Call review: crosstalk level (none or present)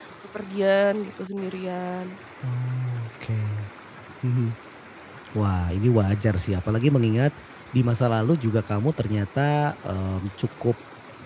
none